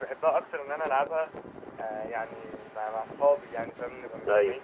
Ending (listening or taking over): taking over